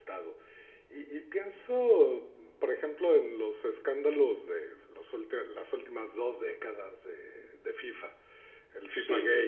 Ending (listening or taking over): listening